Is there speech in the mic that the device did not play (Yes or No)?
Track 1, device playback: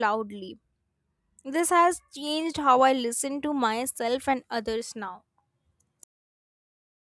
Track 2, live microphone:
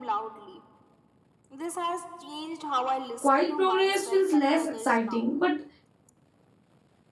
Yes